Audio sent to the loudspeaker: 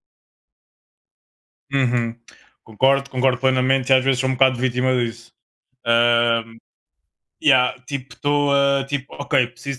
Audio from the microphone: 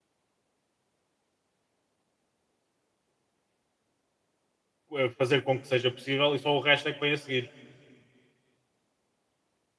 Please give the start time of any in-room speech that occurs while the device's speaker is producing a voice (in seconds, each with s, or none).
5.0 s